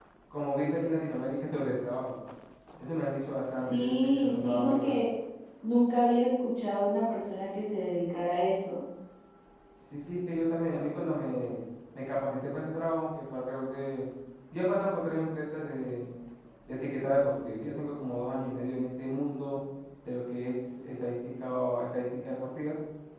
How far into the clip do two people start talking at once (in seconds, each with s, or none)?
3.5 s